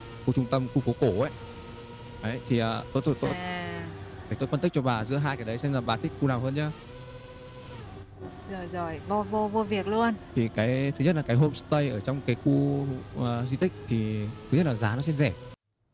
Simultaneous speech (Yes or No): No